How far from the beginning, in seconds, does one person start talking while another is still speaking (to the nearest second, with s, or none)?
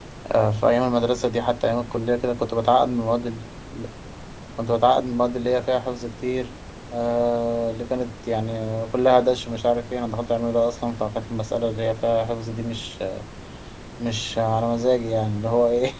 none